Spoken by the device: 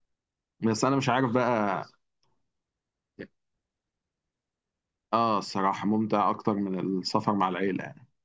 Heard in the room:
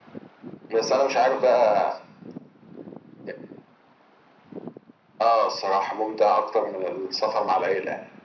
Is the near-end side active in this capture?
No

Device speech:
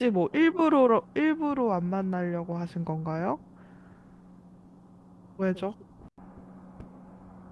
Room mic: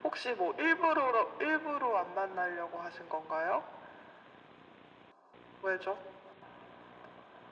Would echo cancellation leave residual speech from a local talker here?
No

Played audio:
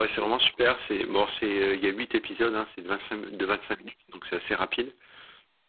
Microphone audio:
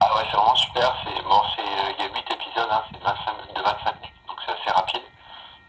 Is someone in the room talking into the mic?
No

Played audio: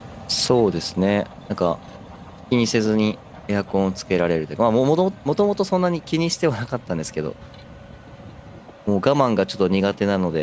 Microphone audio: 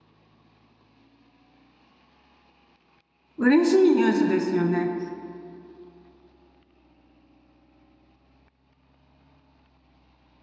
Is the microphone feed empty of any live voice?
No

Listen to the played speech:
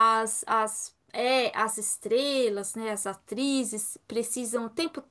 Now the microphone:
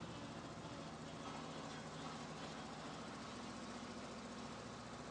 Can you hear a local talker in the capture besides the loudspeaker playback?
No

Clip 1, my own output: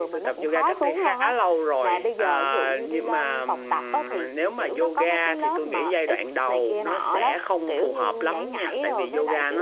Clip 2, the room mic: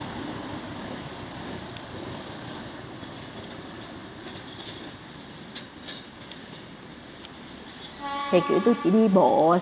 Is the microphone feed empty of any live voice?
No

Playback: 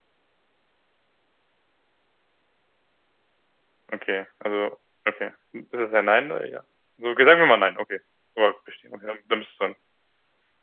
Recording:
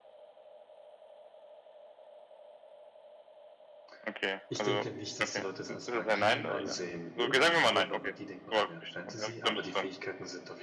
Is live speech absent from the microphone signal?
No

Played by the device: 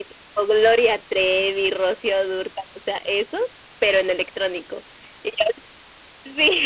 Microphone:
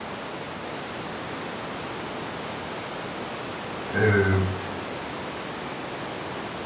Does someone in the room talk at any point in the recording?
Yes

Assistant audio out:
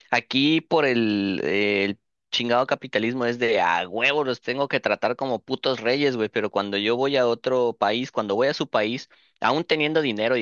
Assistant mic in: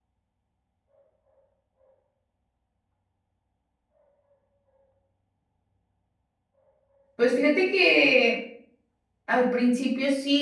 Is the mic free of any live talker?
No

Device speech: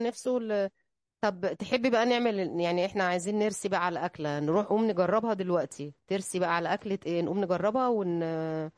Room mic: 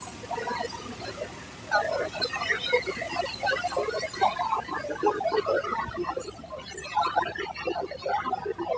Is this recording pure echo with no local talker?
Yes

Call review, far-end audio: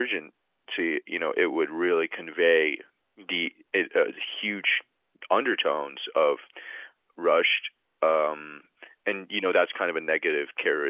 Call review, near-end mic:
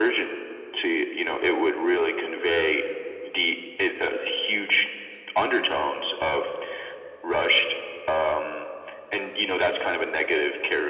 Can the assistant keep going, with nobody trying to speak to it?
Yes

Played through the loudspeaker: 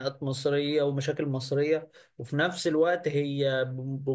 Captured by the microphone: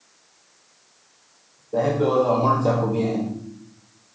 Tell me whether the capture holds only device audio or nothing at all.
No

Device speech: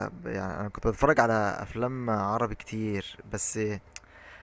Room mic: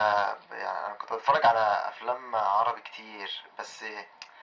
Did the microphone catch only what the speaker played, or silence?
Yes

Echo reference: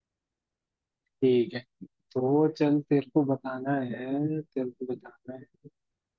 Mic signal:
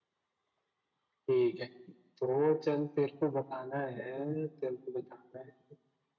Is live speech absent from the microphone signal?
Yes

